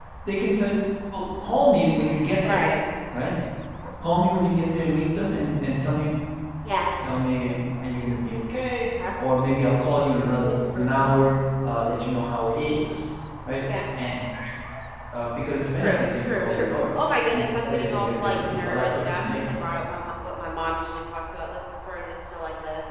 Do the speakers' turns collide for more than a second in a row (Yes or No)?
Yes